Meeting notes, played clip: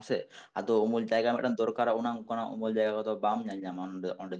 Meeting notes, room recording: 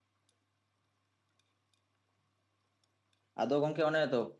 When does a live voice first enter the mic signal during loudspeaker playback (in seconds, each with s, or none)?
3.4 s